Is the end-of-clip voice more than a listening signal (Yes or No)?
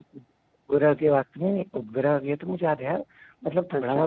No